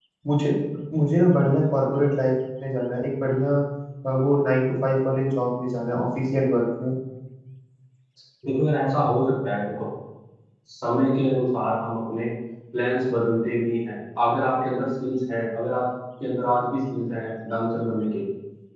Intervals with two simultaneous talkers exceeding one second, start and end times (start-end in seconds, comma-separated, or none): none